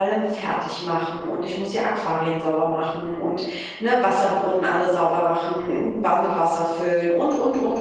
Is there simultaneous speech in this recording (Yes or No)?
No